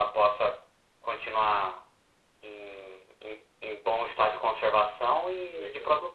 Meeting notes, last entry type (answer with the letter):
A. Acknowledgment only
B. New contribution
B